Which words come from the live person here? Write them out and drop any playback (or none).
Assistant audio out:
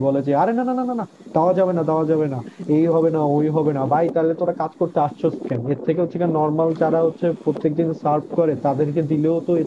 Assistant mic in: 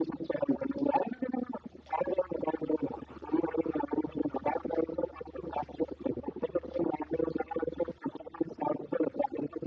none